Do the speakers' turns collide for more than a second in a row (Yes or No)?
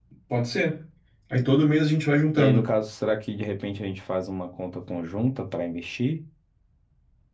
No